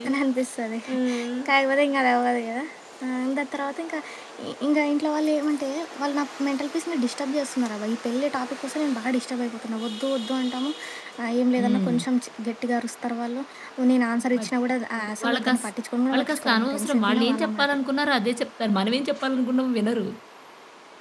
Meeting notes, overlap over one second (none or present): present